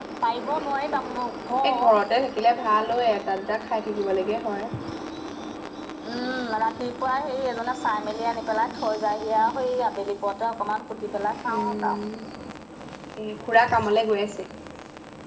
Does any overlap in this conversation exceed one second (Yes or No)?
No